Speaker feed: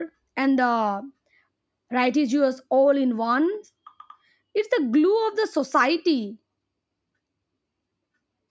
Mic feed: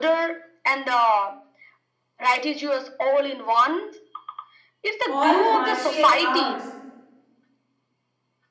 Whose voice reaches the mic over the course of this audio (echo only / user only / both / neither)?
both